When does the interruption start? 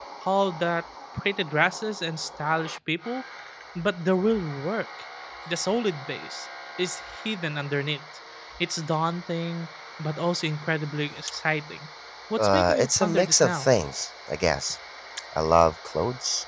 12.4 s

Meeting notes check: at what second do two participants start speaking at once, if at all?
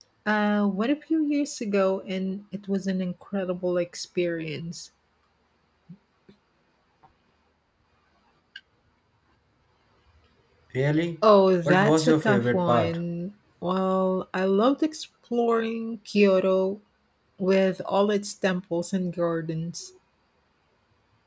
11.6 s

